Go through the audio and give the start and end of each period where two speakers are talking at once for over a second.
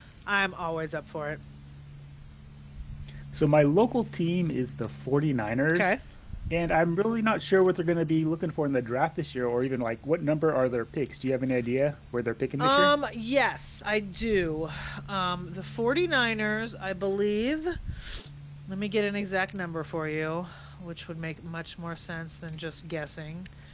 none

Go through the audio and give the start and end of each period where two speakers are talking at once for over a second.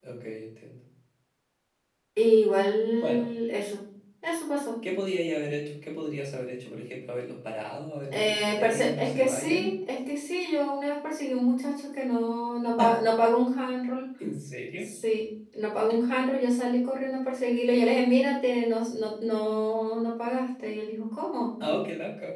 8.1-9.7

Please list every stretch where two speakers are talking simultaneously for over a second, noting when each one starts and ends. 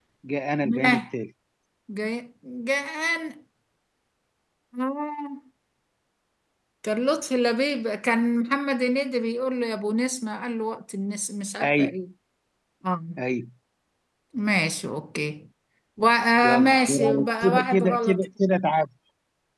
16.4-18.2

